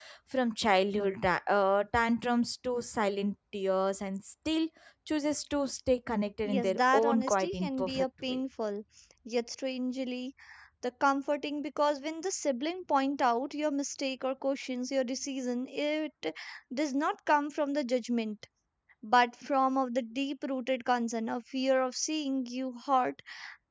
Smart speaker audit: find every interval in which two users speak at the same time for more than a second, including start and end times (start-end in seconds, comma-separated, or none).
6.5-8.4